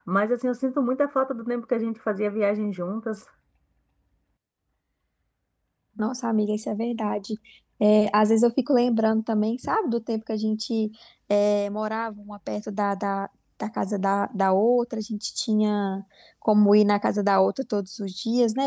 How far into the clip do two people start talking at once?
none

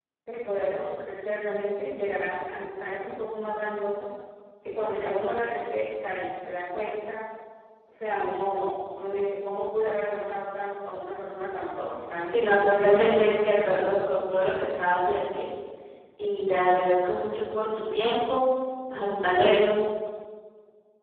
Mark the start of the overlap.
12.2 s

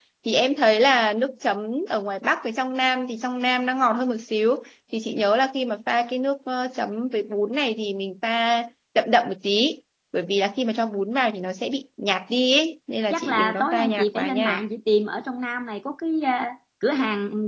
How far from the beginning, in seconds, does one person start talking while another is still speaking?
13.1 s

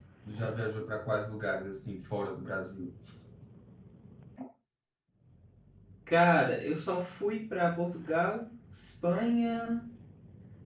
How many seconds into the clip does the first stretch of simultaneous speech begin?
none

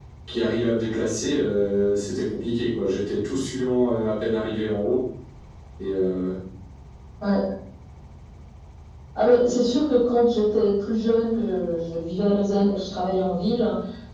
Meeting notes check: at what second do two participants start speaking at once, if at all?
none

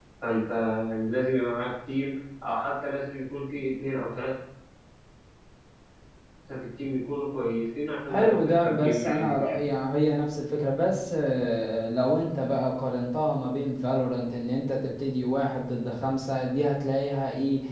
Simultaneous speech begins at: 8.1 s

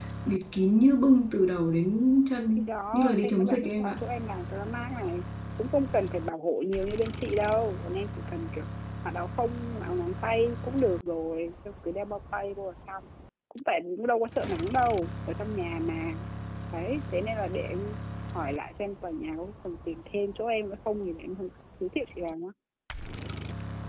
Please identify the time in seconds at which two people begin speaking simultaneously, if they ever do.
2.5 s

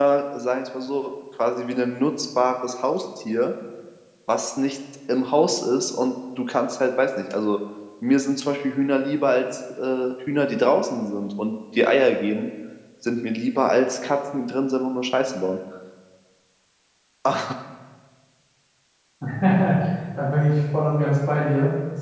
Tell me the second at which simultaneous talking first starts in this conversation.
none

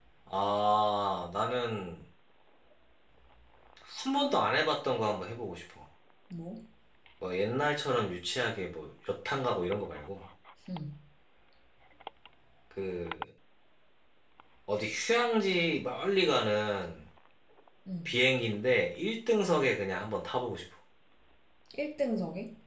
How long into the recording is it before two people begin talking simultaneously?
none

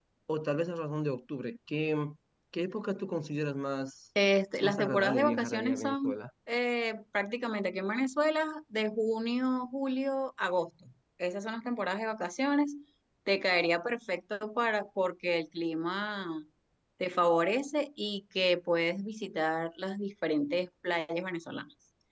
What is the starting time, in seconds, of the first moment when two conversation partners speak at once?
4.6 s

